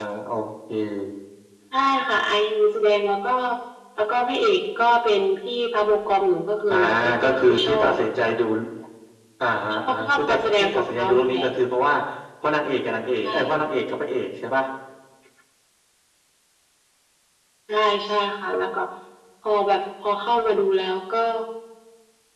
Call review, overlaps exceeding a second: present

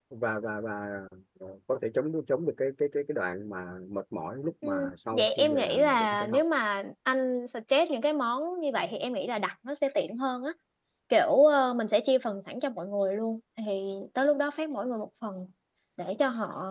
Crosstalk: present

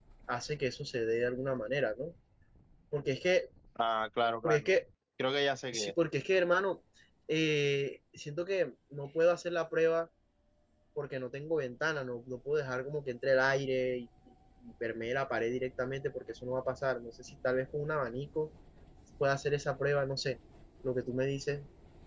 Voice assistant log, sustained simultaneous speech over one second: none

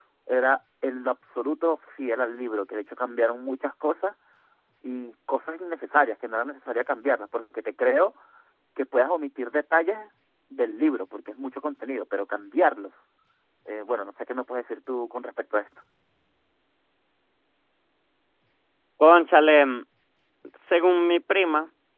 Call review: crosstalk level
none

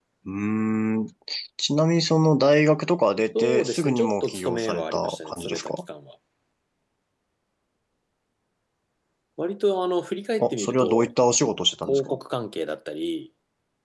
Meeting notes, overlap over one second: present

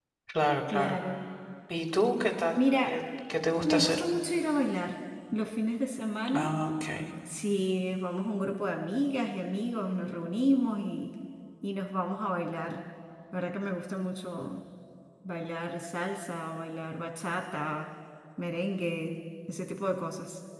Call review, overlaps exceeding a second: none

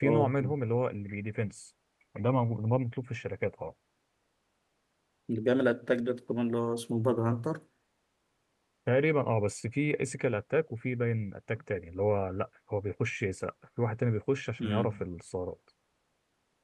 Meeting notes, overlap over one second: none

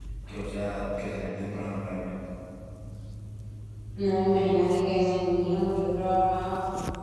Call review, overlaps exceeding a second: none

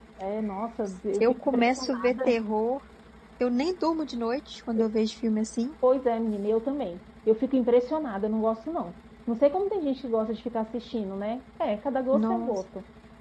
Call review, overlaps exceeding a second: present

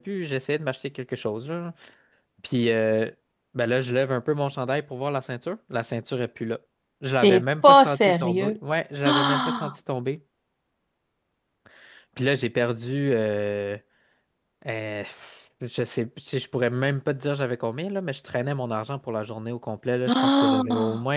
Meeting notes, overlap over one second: present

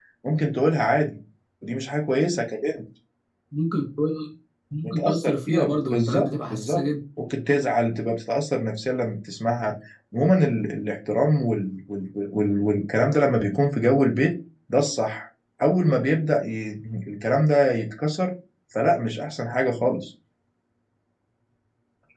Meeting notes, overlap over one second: present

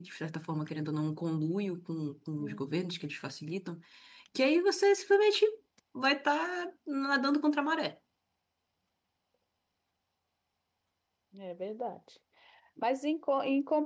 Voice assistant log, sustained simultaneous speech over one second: none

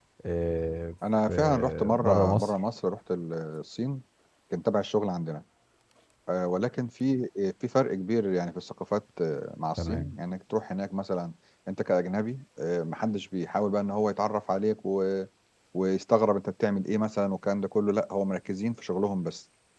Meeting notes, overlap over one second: present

